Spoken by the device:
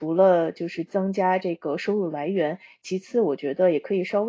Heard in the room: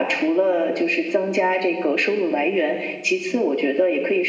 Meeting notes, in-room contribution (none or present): none